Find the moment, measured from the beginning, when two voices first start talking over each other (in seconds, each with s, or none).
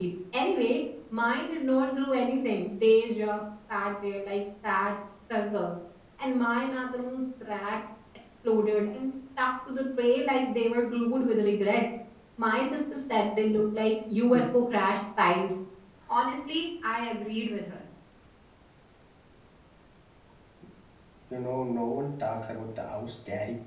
none